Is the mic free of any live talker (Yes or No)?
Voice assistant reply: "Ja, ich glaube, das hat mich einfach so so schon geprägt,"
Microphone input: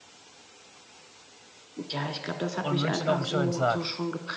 No